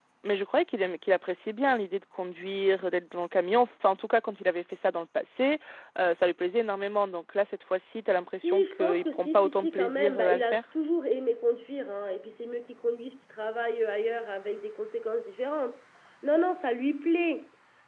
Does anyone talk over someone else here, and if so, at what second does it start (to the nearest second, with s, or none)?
8 s